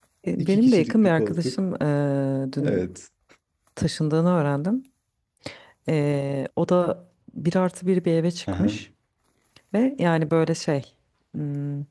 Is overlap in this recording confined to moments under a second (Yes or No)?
No